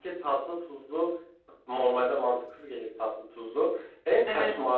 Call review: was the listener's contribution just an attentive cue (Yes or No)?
Yes